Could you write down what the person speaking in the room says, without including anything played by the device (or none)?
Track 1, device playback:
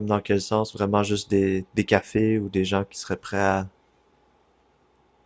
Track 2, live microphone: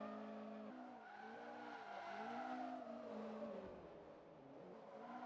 none